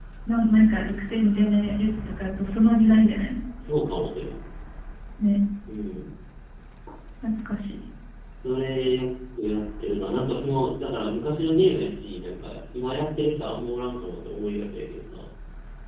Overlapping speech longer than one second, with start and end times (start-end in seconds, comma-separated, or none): none